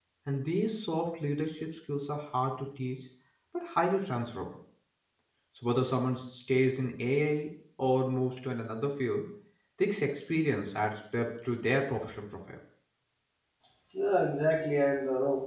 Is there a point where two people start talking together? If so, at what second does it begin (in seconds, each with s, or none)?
none